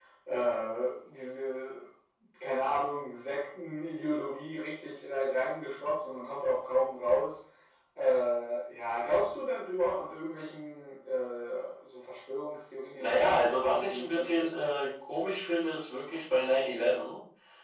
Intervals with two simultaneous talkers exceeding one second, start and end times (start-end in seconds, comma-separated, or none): 13.0-14.5